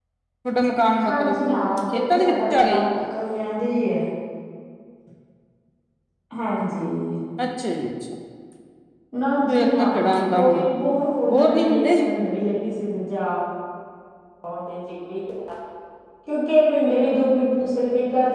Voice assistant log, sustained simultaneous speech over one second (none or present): present